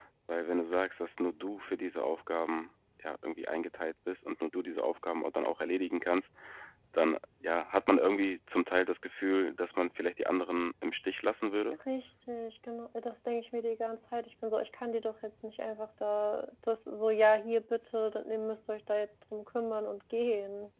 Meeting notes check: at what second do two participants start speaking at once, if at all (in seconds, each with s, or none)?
none